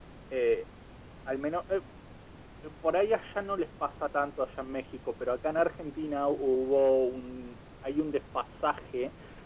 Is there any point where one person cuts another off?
No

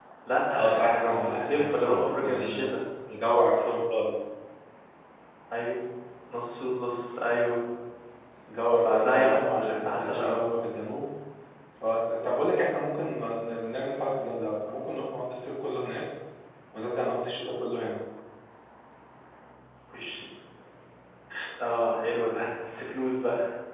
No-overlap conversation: No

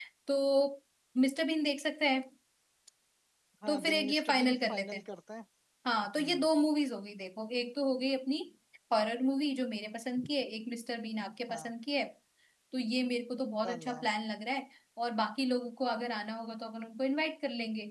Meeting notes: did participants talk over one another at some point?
Yes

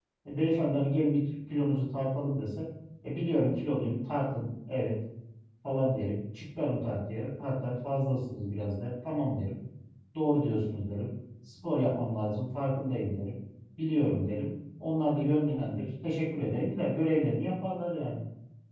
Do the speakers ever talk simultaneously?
No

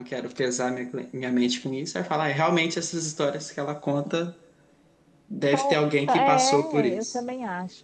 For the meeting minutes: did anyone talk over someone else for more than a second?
Yes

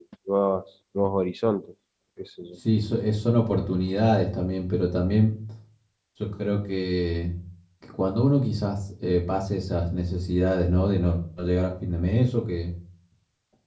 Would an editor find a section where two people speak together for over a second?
No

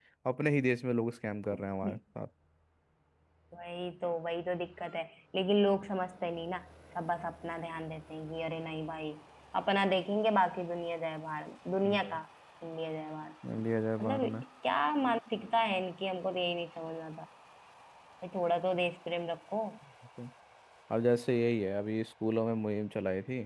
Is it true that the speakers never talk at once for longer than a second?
Yes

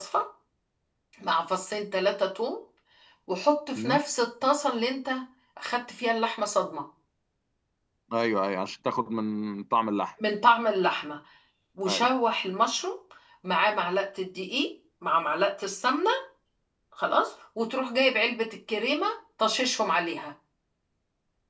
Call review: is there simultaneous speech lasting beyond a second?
No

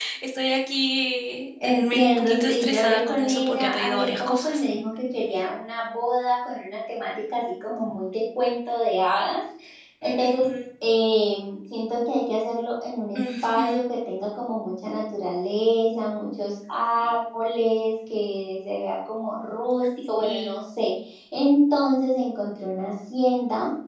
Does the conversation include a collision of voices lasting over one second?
Yes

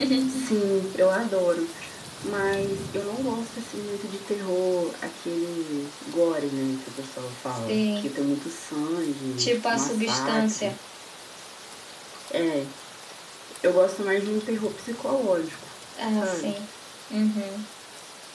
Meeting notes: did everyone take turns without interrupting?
No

